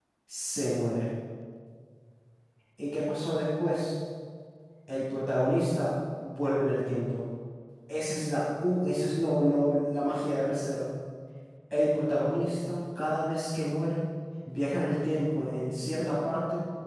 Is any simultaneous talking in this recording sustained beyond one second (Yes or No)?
No